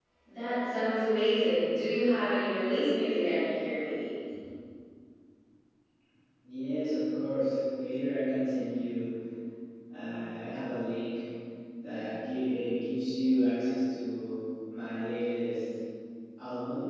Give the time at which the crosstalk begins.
none

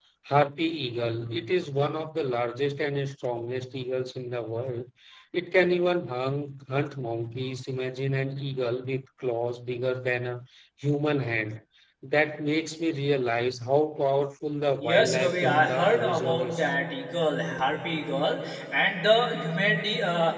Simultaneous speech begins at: 14.8 s

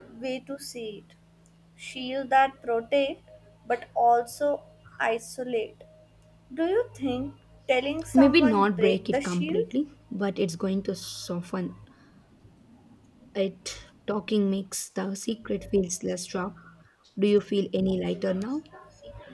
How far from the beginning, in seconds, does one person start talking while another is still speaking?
8.1 s

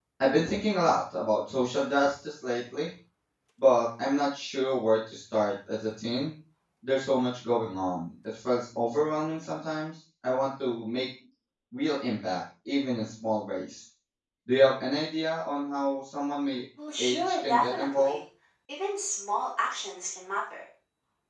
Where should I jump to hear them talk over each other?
16.8 s

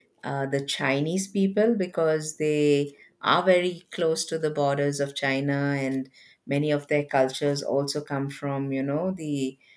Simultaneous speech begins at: none

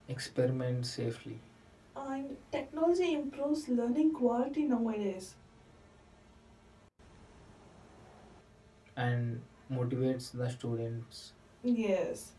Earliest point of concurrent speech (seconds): none

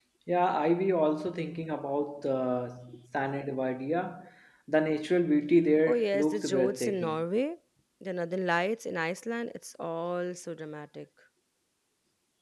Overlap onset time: 5.9 s

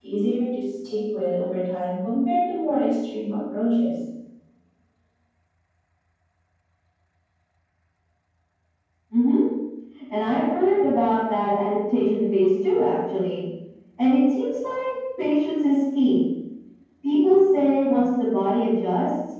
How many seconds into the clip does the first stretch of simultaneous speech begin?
none

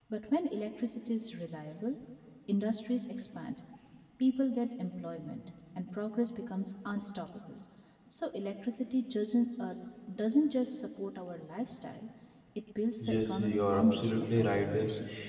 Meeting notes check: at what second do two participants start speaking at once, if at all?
13.0 s

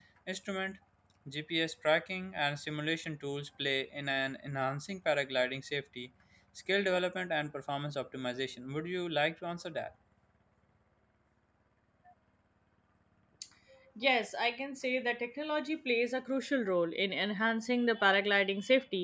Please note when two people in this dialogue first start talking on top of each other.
none

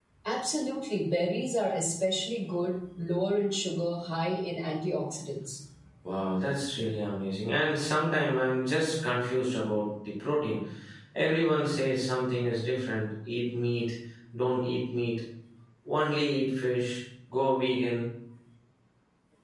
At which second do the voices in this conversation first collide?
none

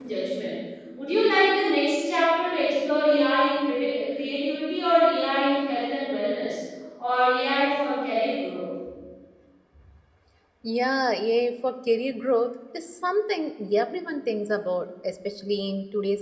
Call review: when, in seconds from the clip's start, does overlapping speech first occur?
none

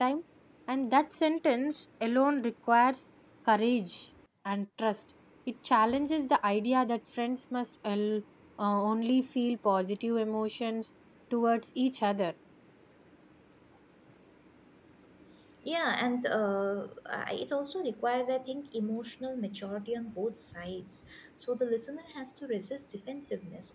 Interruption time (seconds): none

